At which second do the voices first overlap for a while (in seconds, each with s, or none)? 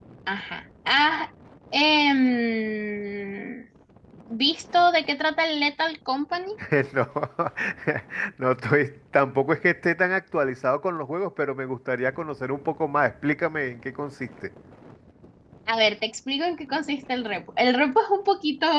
none